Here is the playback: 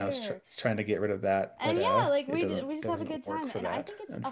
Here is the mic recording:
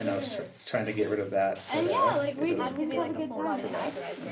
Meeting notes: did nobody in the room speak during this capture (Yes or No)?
No